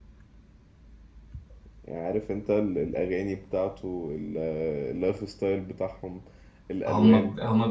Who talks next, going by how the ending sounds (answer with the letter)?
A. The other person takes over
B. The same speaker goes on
A